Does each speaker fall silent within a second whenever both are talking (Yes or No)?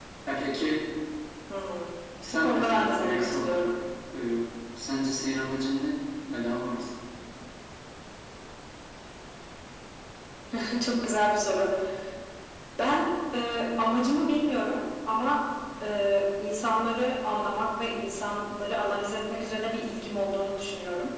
No